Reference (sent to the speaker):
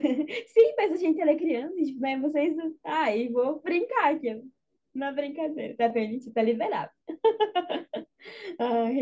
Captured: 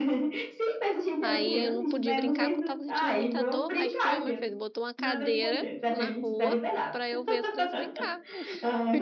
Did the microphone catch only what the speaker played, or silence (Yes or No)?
No